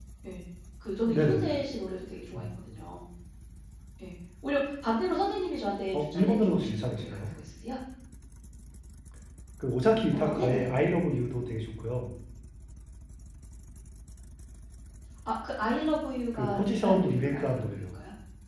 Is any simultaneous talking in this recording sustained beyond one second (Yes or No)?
Yes